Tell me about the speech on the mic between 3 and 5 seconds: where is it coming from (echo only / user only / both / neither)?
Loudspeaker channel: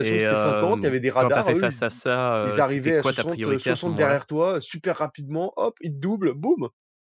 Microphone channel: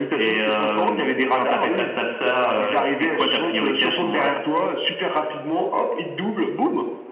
echo only